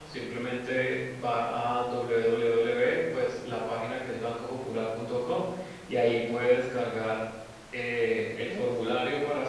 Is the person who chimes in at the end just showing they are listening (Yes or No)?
Yes